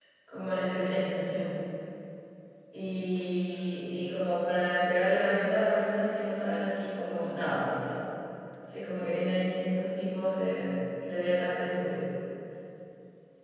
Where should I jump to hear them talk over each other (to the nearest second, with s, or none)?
none